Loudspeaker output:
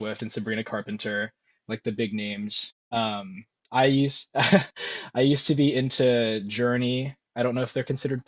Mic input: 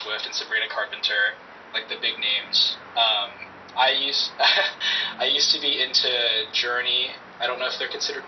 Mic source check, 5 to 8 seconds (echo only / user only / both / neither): echo only